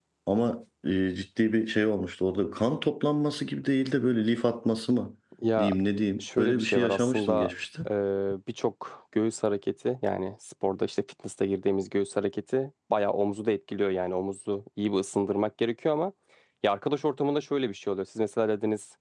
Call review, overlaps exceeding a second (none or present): present